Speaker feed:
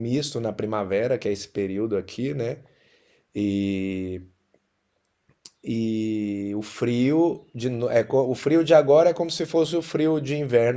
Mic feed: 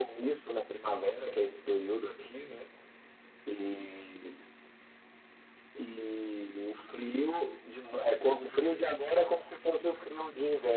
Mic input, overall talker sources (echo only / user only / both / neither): echo only